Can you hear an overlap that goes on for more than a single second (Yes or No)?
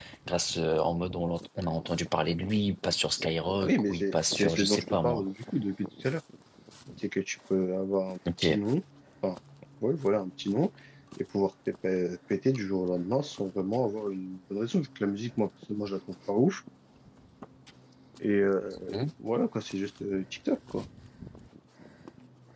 Yes